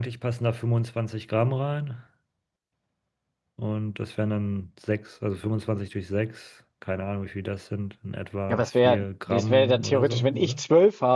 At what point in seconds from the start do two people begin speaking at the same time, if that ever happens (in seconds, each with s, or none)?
8.5 s